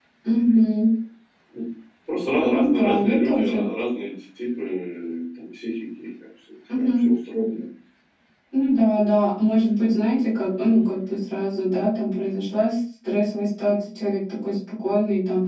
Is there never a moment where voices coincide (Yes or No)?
No